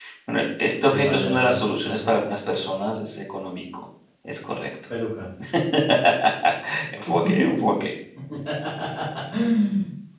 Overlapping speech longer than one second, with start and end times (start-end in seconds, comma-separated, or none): 0.8-2.1